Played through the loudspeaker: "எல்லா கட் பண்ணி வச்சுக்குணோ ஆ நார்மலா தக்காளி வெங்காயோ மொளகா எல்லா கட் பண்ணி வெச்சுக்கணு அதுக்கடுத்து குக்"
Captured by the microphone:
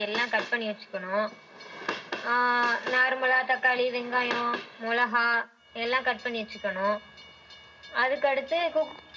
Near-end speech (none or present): none